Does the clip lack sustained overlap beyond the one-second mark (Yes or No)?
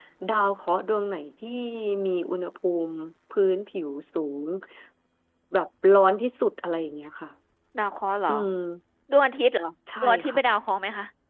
Yes